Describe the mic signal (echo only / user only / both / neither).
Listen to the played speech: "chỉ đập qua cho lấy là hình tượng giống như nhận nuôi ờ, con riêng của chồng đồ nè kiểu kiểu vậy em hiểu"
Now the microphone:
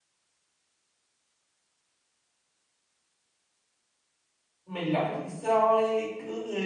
user only